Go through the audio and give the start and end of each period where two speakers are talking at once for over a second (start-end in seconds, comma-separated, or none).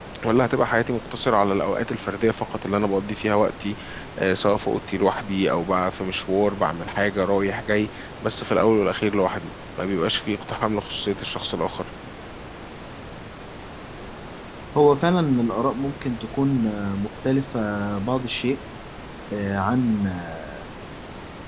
none